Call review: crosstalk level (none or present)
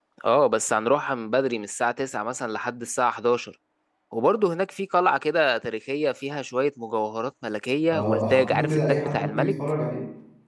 present